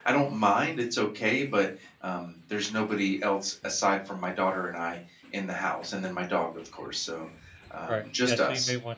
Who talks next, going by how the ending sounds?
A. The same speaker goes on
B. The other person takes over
B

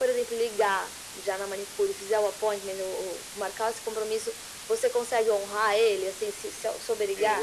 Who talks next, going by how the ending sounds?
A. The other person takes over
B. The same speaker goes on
A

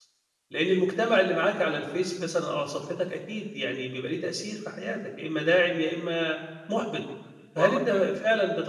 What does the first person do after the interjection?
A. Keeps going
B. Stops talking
A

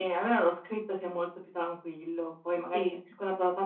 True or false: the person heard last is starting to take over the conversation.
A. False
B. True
A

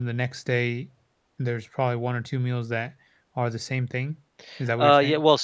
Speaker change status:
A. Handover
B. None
A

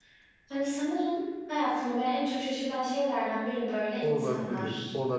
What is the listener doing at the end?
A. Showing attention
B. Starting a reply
B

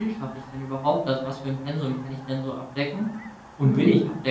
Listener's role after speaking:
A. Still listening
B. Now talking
A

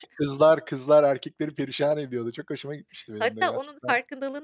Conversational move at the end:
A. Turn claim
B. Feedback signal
A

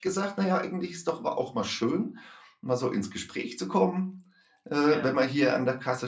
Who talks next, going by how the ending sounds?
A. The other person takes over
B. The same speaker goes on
B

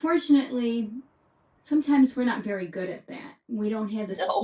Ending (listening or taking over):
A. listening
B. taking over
A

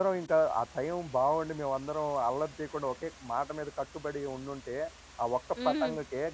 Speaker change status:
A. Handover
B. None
B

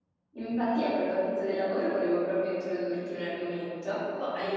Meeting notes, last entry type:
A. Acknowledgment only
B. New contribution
A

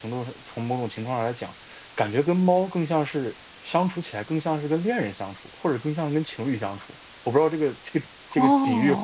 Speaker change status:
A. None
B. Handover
B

